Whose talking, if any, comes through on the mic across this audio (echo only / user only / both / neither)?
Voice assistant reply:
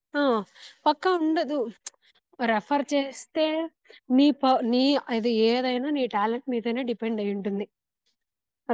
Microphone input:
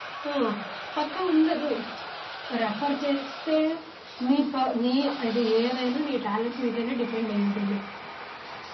echo only